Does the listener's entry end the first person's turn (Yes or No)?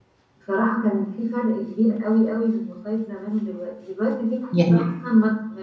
No